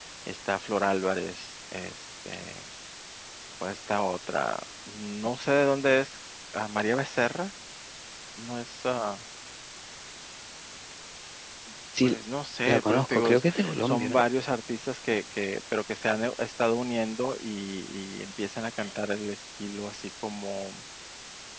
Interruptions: present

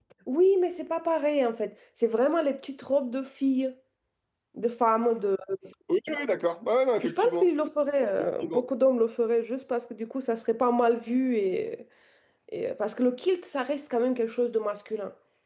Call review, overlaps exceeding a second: none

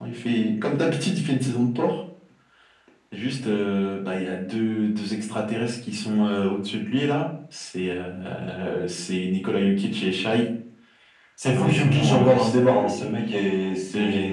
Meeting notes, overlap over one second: present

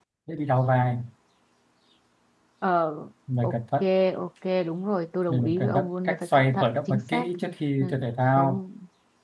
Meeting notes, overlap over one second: present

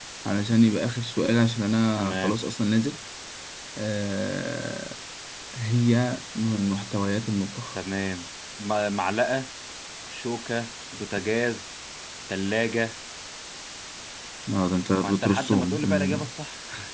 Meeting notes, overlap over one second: present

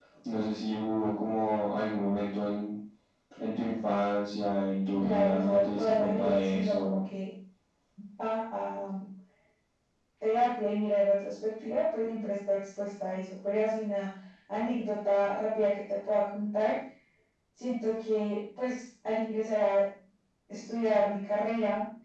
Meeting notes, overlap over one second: present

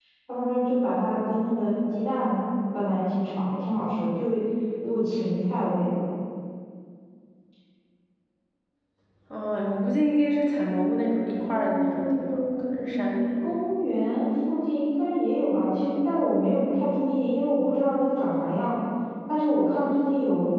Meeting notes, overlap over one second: present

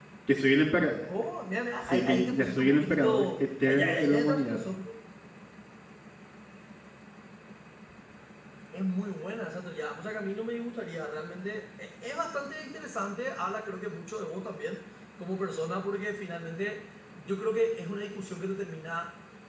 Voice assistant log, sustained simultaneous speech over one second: present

